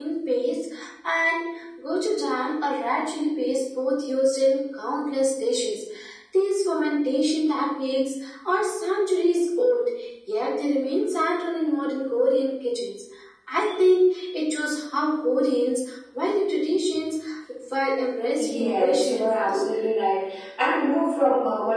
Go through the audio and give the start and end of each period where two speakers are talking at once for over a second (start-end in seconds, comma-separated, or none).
18.4-19.6